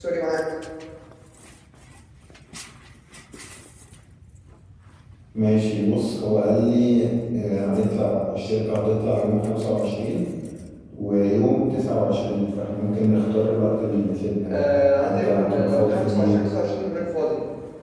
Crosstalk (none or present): present